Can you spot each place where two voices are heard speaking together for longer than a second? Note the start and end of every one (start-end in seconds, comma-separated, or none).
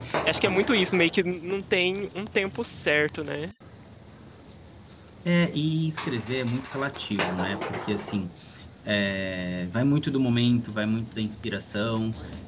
none